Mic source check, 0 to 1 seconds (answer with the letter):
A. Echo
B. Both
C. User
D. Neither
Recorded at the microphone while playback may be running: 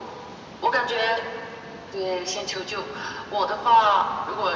A